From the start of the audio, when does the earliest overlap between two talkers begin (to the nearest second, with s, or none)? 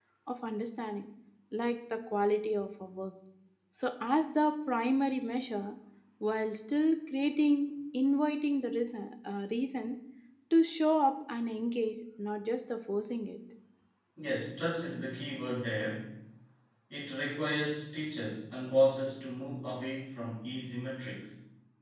none